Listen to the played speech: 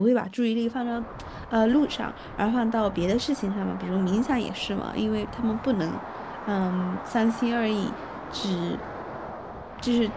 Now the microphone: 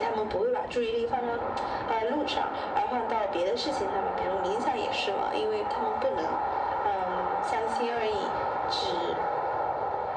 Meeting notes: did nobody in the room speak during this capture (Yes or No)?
Yes